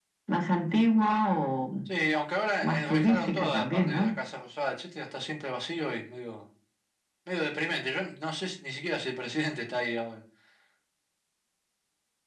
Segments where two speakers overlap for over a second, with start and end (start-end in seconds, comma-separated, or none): 2.6-4.1